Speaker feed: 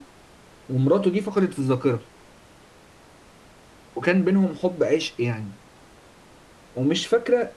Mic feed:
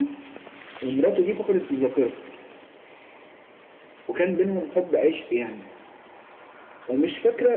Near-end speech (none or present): none